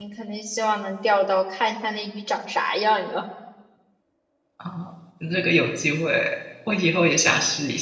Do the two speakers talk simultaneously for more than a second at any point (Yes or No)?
No